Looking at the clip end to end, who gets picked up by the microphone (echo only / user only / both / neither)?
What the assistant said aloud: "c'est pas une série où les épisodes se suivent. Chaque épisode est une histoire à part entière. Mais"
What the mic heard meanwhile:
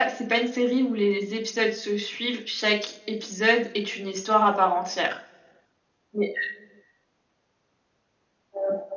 echo only